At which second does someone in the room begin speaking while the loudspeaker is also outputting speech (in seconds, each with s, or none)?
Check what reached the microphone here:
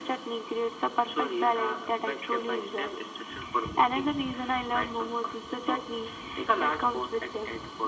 none